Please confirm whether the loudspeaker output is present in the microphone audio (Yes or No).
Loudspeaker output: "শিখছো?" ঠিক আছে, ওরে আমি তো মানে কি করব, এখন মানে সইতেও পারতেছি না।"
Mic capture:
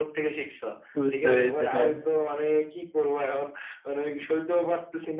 Yes